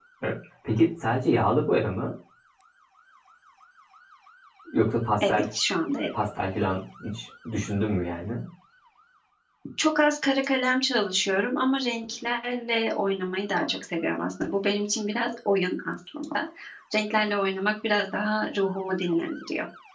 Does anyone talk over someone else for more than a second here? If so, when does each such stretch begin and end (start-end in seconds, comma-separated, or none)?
none